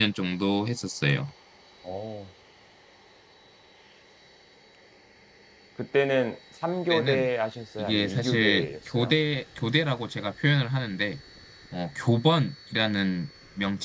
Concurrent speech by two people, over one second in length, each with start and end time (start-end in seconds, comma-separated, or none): 7.8-9.1